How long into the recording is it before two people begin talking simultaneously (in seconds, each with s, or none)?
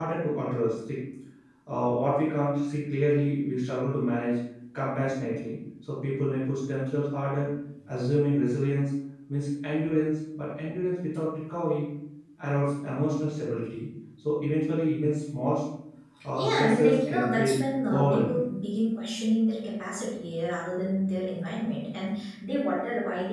16.3 s